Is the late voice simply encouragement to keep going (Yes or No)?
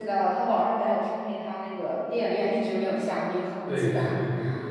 No